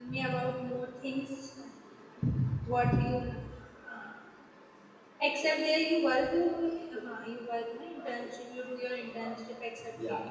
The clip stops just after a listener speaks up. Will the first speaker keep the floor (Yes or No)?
No